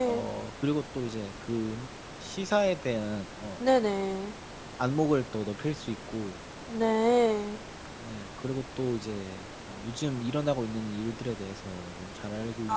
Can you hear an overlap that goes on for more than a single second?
No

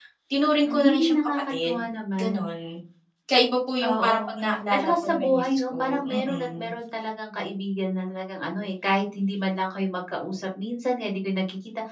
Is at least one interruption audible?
Yes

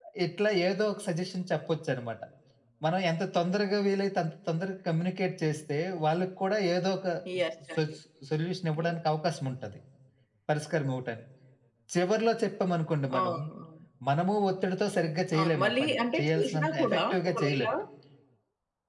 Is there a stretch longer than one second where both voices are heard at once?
Yes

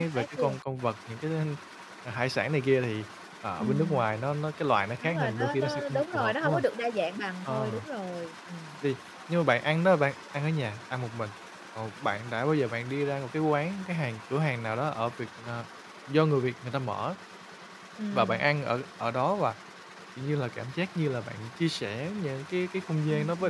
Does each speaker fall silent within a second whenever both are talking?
No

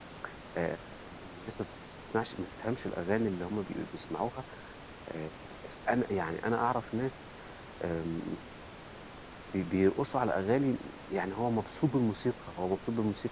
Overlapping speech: No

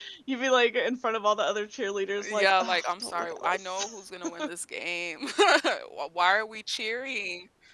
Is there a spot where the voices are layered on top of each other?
Yes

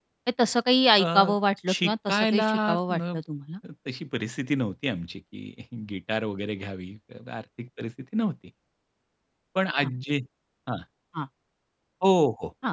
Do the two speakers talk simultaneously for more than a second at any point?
Yes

